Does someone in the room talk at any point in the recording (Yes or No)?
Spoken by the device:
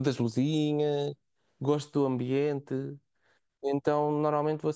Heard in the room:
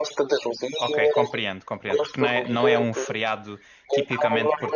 Yes